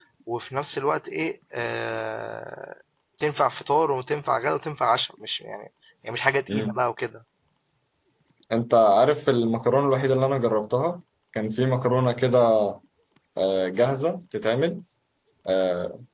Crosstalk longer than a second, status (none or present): none